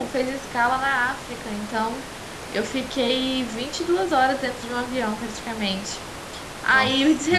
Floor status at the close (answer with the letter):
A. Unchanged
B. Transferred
A